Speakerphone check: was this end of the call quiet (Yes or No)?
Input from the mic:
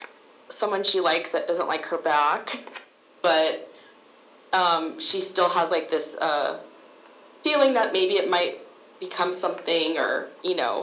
Yes